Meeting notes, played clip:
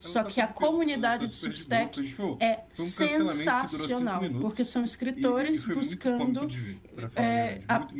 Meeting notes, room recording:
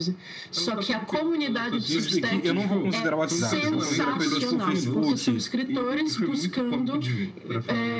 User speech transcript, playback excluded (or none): nisso daqui eu não vou considerar o WhatsApp, eu vou considerar coisas tipo Facebook,